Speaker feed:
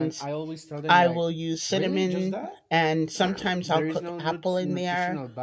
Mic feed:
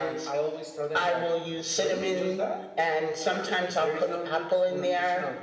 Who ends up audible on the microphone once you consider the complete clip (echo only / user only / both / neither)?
echo only